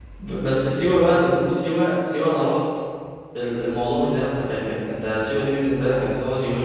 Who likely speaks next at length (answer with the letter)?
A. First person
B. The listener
A